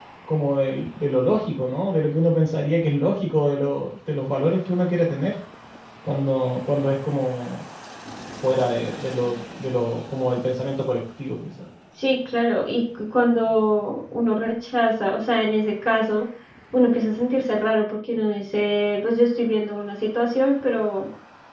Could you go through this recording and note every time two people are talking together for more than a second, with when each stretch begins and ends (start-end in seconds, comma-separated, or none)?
none